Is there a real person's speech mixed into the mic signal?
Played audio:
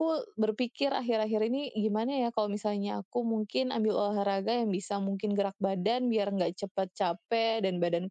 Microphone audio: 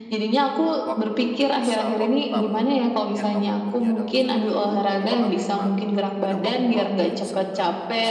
Yes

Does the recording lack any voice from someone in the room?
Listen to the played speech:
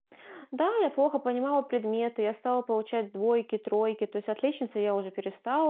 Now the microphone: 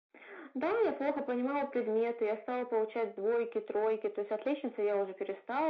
Yes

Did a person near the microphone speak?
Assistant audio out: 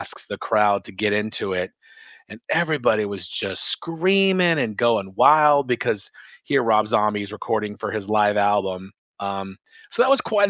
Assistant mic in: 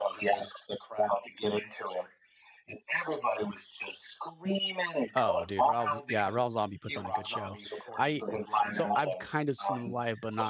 Yes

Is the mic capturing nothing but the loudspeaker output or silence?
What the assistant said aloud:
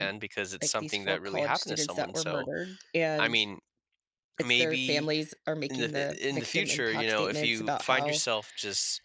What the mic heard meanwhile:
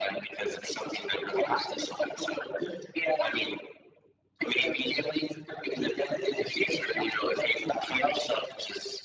Yes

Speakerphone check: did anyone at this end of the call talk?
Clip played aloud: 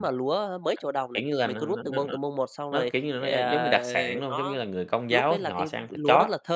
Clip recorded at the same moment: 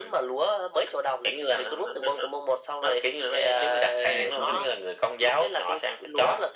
Yes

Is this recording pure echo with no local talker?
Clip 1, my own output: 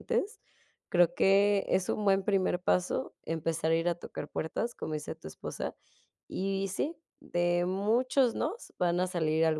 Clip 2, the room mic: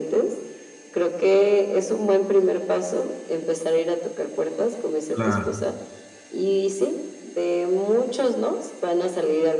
No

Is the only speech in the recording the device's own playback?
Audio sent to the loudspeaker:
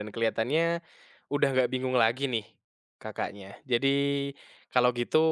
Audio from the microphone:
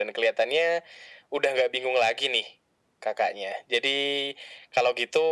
Yes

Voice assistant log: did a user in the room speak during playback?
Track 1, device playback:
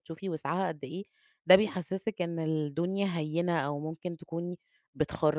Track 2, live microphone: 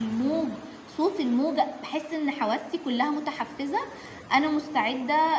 Yes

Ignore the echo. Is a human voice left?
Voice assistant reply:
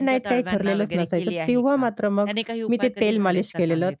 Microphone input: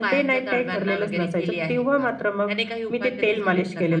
No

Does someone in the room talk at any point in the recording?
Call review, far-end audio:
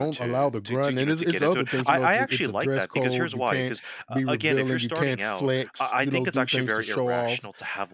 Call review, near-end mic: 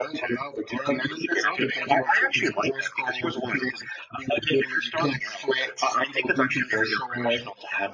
No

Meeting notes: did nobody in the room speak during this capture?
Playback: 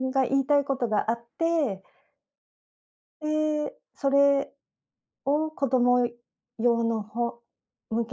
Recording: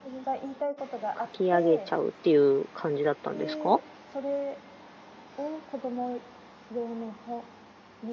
No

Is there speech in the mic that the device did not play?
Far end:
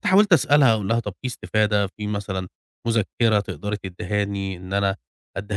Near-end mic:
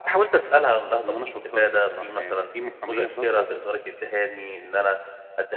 Yes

